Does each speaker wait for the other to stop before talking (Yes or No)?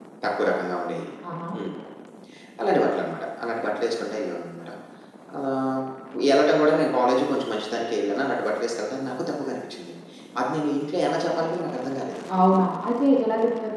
Yes